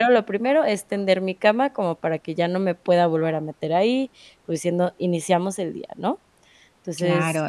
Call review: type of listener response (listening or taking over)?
taking over